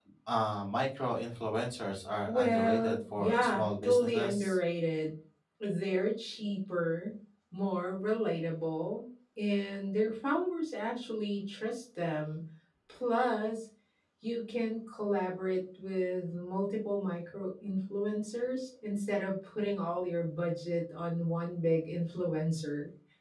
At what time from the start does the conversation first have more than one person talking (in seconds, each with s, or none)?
2.3 s